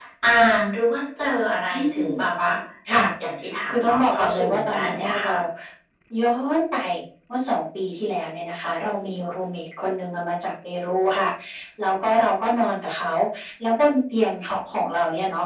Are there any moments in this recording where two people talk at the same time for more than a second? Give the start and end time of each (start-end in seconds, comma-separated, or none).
3.7-5.3